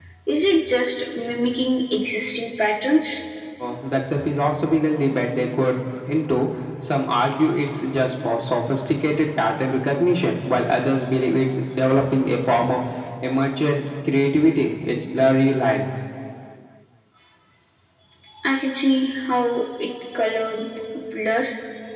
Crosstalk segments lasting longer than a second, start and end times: none

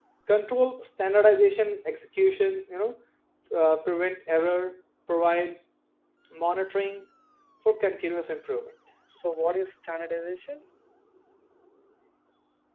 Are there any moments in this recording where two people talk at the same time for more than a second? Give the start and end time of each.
none

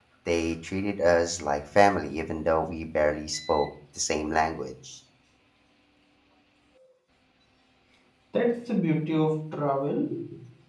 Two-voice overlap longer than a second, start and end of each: none

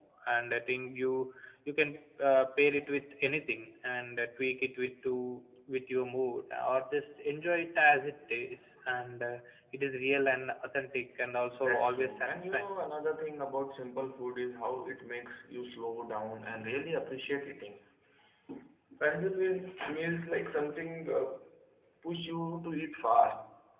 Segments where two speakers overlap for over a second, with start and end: 11.5-12.7

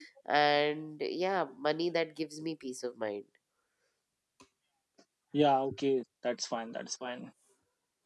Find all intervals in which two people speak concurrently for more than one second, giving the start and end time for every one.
none

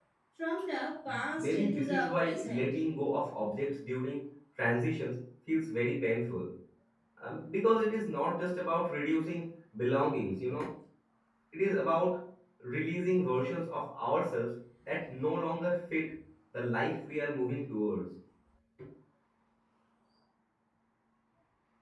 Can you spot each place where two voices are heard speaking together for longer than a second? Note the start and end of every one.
1.4-2.7

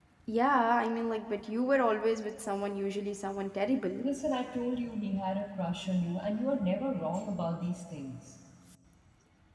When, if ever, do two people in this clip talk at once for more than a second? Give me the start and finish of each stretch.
none

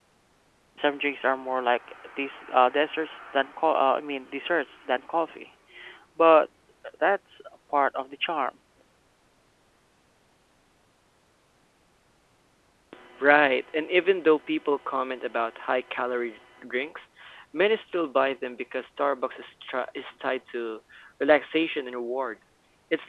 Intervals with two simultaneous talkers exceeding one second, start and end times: none

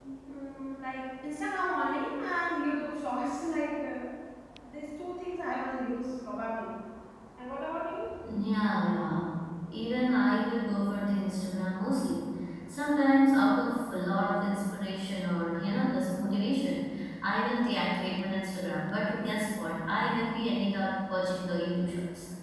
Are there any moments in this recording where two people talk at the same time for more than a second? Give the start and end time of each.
none

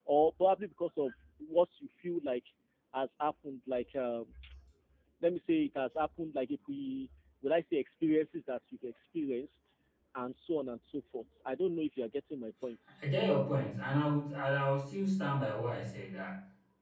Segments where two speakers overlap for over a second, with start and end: none

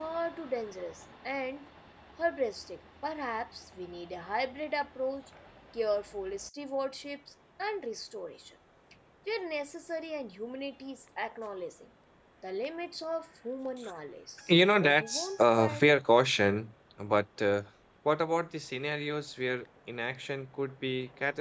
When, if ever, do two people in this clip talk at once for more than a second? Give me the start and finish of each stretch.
14.5-15.8

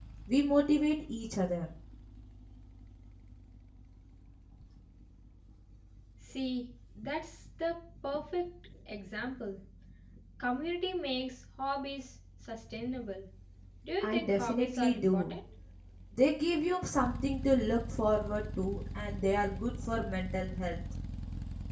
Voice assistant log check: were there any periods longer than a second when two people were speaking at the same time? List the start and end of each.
14.0-15.3

